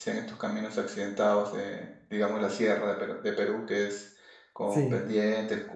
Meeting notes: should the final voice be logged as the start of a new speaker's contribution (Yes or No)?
No